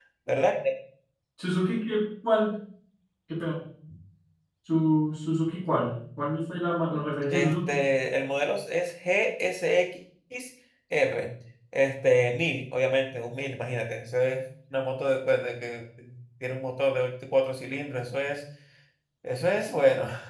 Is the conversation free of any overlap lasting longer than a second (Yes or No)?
Yes